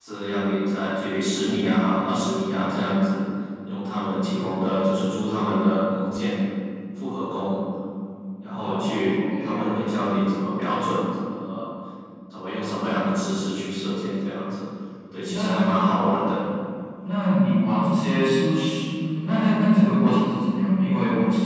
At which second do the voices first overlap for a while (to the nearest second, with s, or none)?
9 s